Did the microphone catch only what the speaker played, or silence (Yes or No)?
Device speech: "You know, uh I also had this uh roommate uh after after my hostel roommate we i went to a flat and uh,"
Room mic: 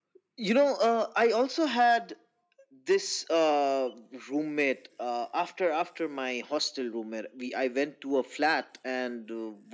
Yes